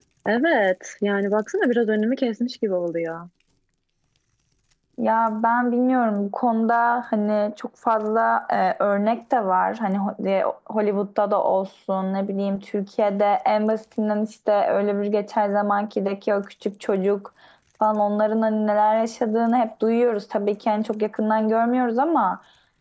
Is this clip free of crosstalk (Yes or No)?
Yes